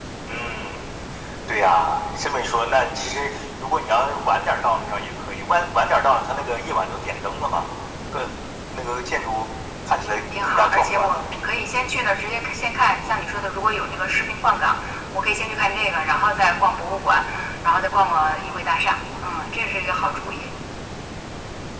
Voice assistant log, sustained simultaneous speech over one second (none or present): present